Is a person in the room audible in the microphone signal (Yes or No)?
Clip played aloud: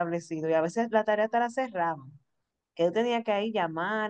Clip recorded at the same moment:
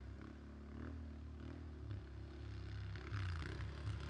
No